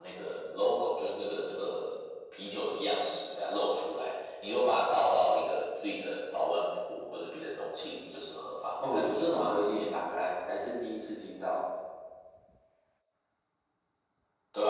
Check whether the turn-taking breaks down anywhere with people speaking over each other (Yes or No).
Yes